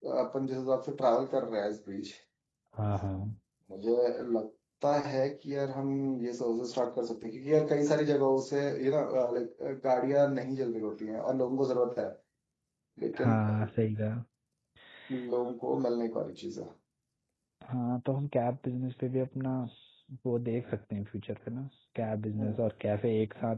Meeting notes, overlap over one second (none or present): none